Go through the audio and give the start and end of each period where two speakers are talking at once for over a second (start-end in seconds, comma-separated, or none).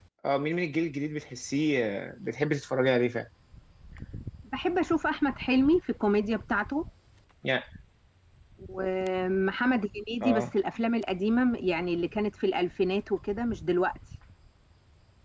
none